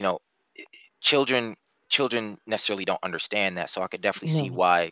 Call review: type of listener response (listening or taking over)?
listening